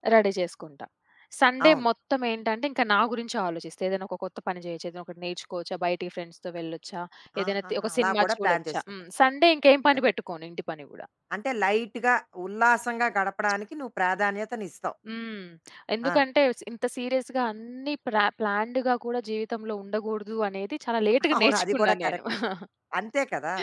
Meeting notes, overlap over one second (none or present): present